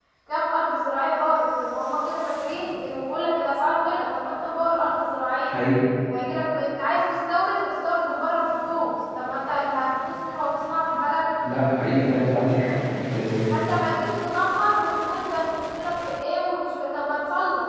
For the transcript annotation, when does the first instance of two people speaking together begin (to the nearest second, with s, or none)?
none